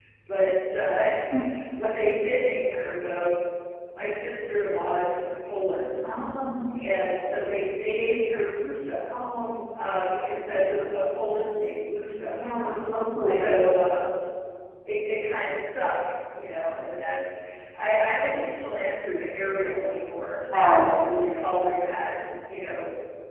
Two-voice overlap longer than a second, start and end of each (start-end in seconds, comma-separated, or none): none